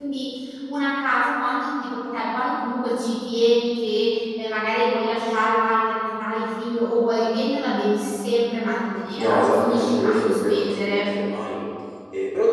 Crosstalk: present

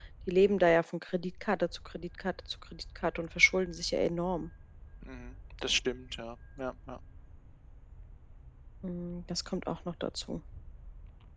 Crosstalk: none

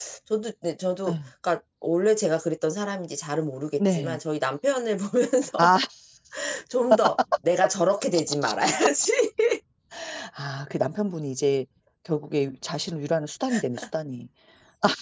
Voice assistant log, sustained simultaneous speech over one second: none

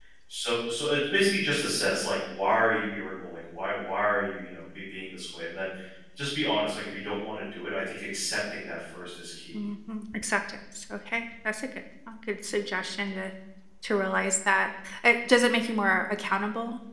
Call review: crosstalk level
none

